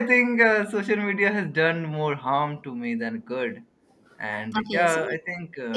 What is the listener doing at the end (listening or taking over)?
taking over